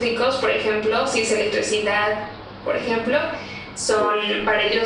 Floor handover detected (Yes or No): No